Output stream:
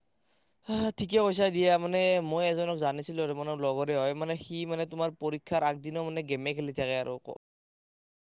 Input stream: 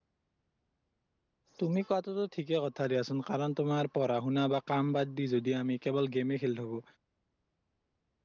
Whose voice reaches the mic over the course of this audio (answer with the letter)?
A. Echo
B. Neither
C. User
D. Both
C